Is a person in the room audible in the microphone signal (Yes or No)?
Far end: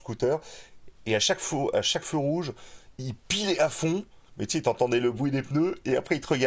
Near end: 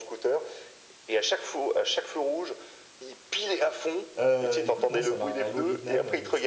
Yes